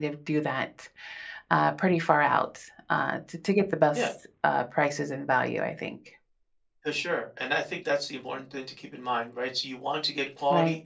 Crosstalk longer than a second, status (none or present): none